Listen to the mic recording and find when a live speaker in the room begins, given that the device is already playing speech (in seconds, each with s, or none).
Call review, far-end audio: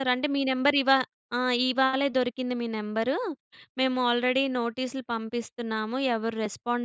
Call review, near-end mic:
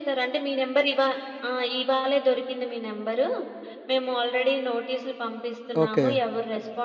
5.8 s